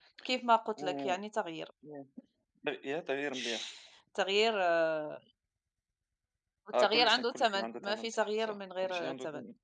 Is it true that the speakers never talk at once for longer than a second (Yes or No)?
No